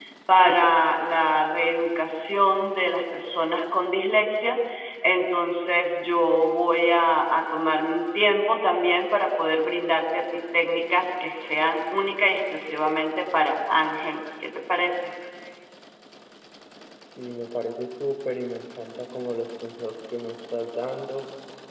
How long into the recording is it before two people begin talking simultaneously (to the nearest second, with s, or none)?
none